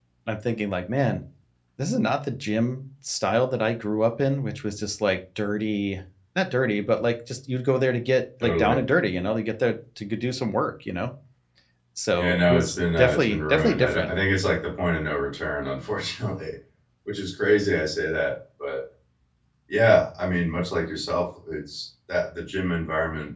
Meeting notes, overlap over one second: present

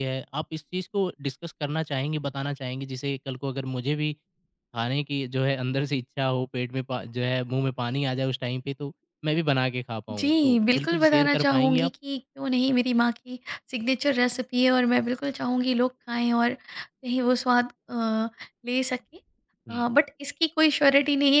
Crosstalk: present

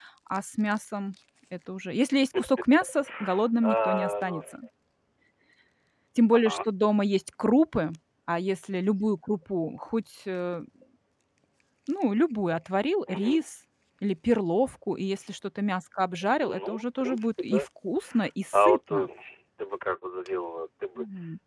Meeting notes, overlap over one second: present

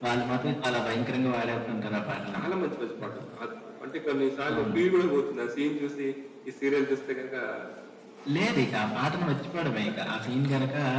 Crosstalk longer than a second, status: none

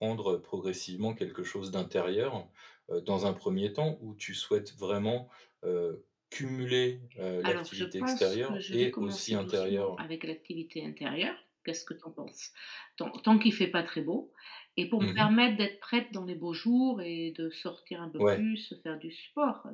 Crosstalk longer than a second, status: present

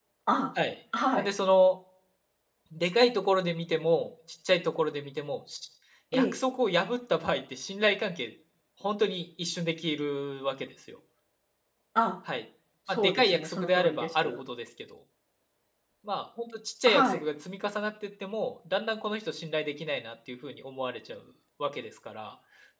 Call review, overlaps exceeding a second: present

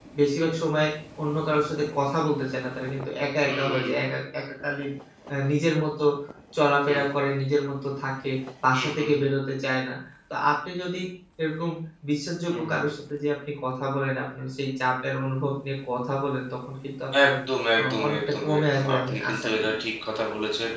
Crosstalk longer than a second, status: present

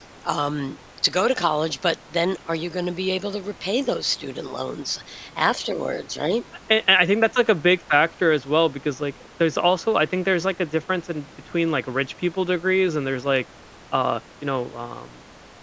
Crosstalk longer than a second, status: none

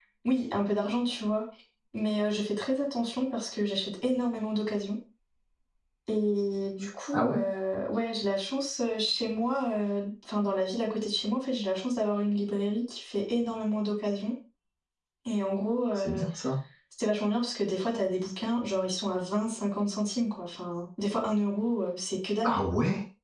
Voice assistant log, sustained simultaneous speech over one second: none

